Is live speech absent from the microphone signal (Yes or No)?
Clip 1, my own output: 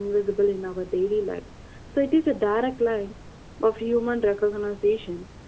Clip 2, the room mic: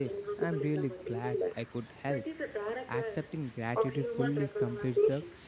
No